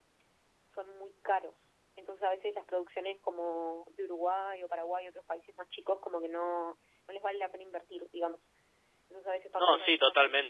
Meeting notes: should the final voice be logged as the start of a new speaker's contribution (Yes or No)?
Yes